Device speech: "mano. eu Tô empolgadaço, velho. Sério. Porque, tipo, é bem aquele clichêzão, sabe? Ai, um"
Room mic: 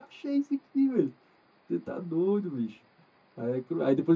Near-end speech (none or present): present